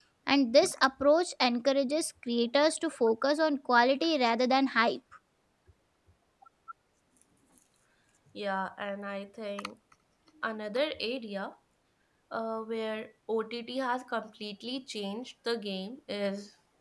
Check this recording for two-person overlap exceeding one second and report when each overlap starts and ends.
none

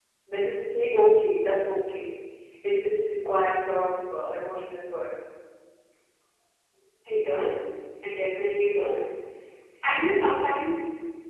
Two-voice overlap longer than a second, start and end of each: none

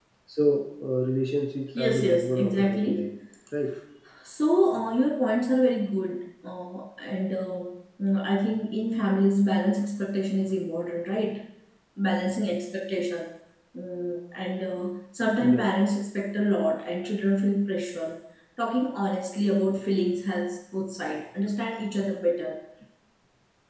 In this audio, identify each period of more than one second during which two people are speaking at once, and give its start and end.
1.8-3.1

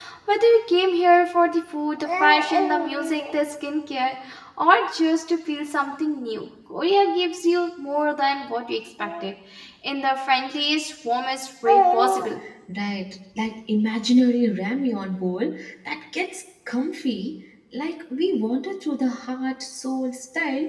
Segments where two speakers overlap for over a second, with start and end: none

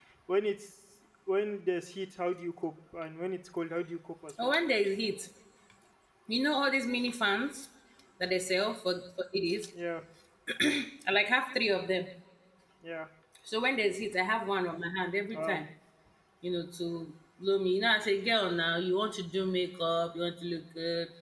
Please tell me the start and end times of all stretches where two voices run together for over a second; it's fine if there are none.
none

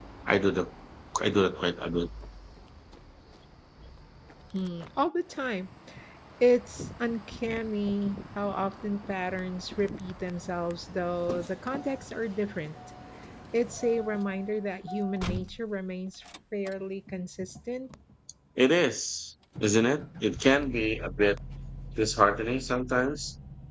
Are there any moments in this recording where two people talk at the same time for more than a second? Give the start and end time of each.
none

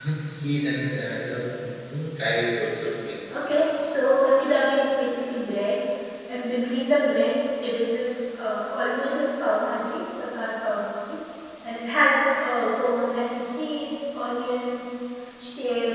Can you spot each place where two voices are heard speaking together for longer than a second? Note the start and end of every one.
none

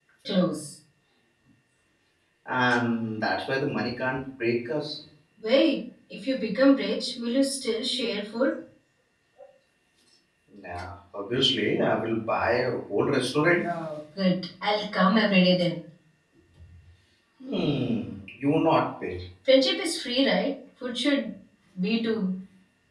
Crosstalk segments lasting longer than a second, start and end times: none

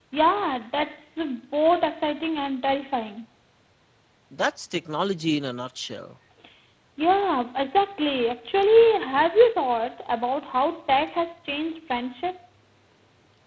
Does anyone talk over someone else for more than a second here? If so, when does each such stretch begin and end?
none

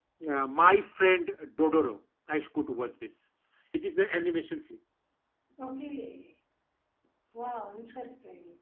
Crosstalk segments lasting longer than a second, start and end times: none

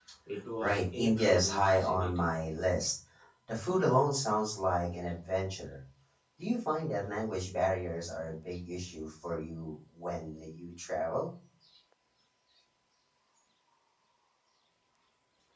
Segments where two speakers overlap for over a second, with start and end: 0.6-2.4

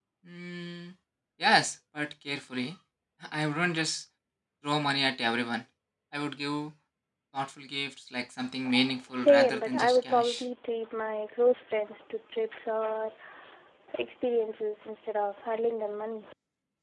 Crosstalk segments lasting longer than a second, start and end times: 9.2-10.4

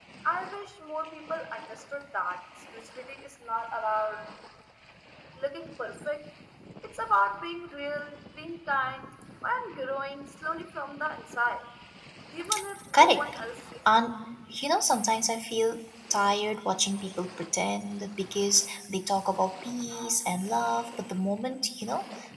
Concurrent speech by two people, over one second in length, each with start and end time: none

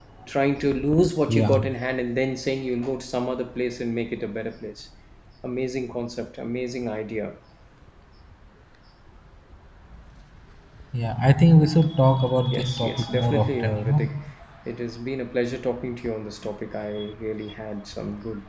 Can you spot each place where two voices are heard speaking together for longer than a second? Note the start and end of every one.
12.5-14.0

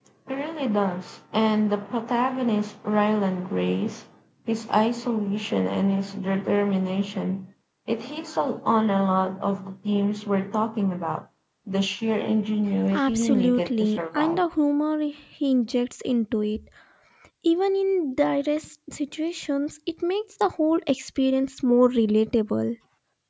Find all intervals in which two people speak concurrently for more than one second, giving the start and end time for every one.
12.9-14.4

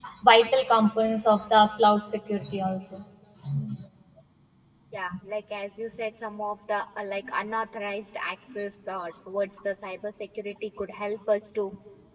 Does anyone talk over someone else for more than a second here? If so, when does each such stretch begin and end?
none

